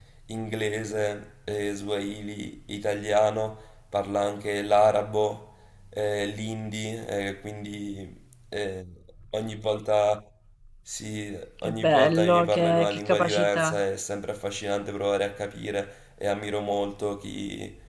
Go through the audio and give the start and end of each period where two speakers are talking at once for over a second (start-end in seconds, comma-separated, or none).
11.6-13.8